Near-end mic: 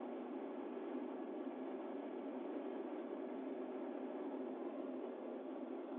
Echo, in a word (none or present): none